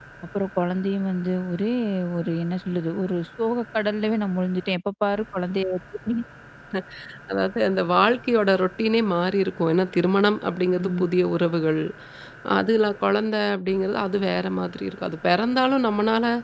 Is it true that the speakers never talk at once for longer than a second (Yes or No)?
Yes